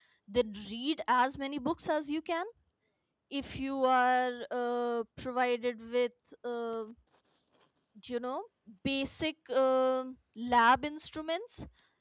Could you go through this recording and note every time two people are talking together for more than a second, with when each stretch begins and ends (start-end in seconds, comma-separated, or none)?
none